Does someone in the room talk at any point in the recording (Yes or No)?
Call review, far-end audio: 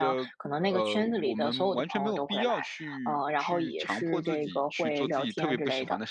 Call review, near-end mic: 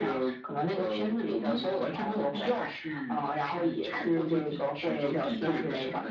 No